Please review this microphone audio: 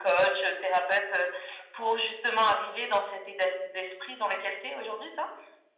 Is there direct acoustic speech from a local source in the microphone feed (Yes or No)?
No